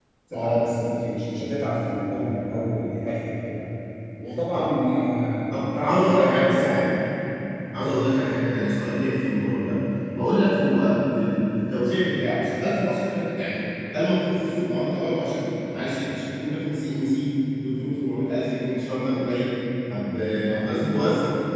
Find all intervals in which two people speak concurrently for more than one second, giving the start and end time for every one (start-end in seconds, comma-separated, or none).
5.5-6.8